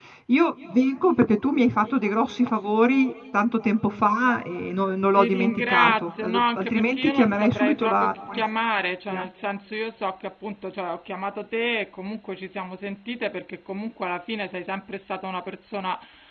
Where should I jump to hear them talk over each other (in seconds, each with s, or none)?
5.2 s